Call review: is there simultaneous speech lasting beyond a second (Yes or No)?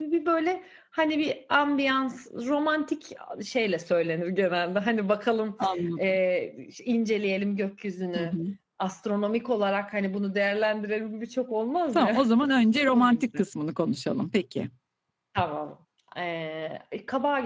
No